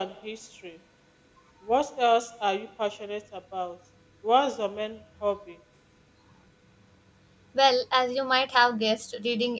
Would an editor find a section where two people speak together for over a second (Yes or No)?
No